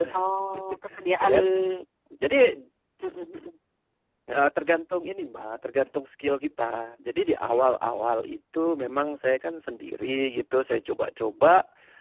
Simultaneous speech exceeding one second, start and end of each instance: none

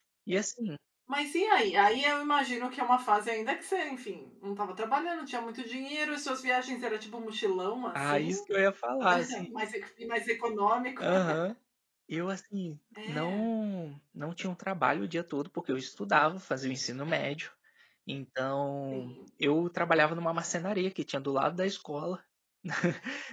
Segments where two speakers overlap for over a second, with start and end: none

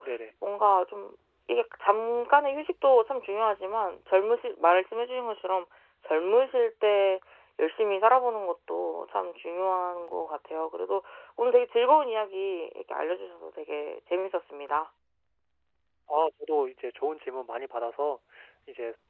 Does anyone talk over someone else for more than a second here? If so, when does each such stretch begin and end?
none

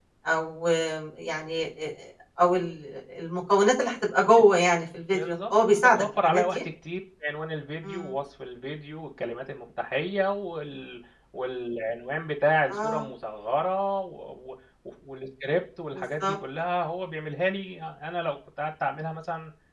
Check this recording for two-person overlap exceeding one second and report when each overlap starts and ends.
5.1-6.6

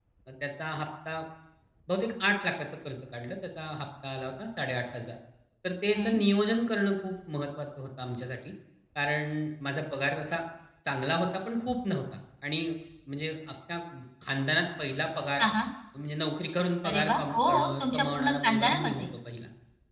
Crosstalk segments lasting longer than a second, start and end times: 16.8-19.0

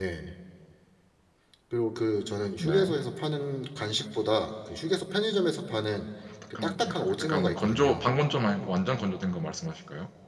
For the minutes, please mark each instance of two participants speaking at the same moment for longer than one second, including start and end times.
6.5-8.1

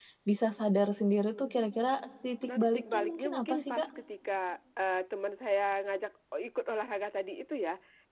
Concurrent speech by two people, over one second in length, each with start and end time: 2.4-3.9

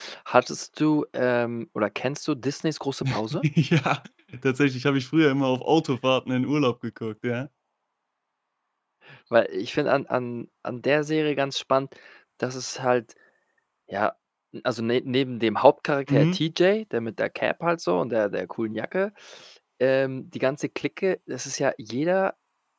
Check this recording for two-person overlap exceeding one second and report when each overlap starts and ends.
none

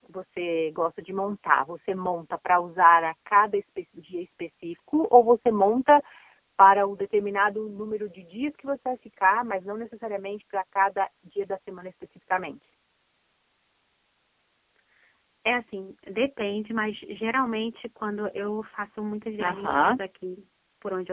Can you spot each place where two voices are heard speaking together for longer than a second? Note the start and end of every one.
none

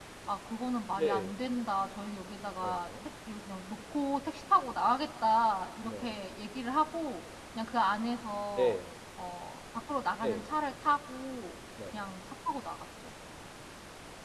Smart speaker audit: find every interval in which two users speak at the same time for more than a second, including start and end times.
none

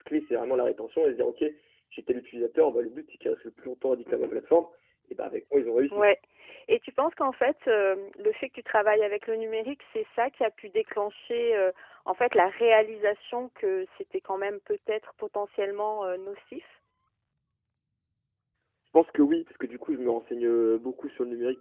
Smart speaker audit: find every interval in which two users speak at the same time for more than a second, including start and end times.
none

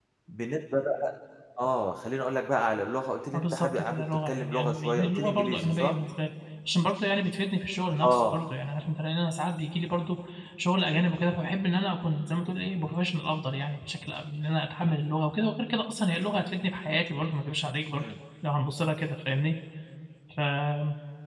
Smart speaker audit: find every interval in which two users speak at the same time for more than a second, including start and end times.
3.3-6.0

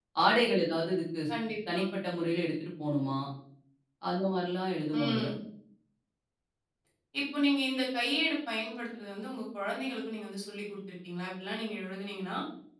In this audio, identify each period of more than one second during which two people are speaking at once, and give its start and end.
none

